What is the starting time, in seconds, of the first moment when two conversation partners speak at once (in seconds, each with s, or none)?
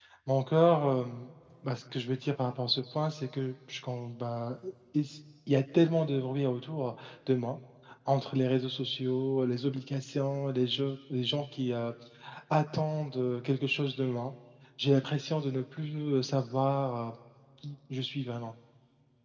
none